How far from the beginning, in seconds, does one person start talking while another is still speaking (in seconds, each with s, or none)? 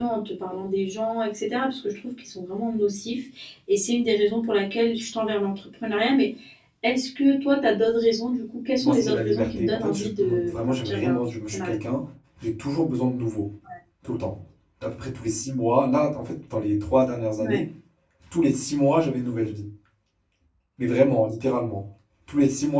8.8 s